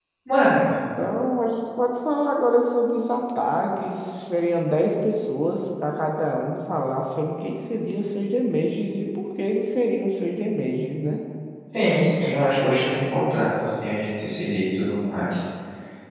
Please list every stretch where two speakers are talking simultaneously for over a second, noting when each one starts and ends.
none

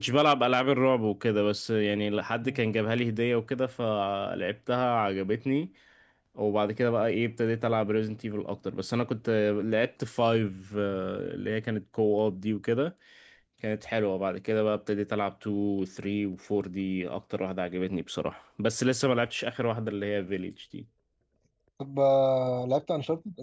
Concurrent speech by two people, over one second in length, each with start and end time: none

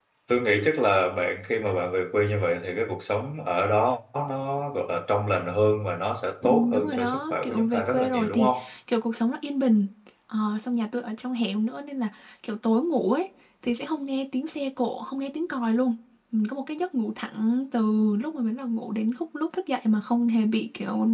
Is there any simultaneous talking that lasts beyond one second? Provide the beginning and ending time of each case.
6.5-8.5

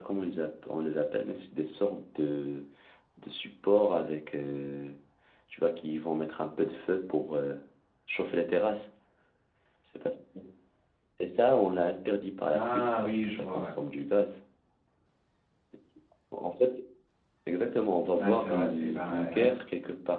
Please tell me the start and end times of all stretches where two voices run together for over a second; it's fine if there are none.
12.5-13.7, 18.2-19.6

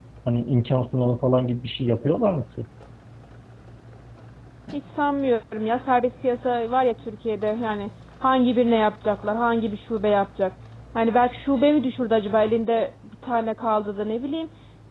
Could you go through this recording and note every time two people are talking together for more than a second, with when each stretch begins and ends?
none

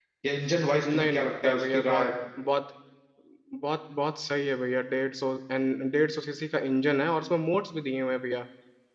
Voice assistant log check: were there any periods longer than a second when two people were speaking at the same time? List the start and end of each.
0.9-2.1

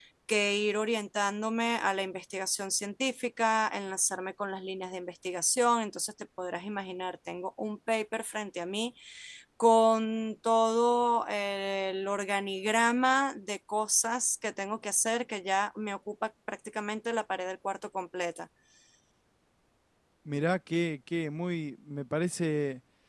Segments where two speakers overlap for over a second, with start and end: none

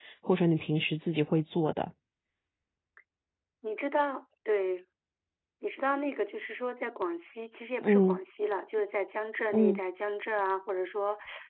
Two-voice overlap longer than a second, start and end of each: none

